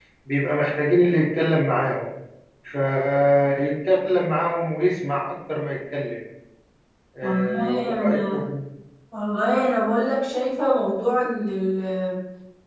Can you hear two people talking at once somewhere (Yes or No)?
Yes